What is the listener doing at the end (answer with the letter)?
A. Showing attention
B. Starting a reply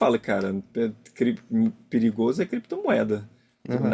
B